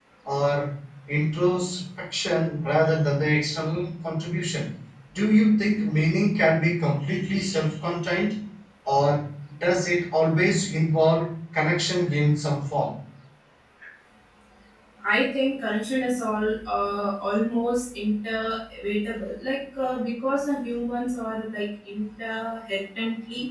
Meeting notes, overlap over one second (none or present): none